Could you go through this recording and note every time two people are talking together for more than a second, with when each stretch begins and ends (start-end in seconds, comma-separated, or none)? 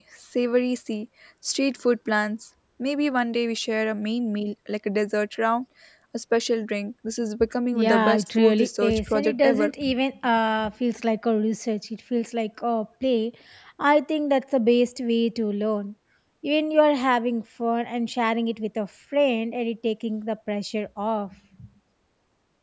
7.7-9.7